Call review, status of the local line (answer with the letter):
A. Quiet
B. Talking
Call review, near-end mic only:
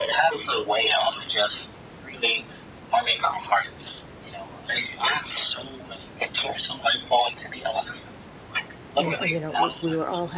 B